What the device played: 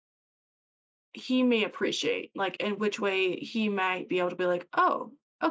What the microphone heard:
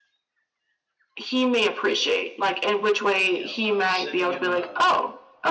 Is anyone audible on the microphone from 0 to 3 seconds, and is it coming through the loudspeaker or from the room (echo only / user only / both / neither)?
echo only